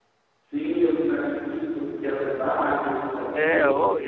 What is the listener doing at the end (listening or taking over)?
taking over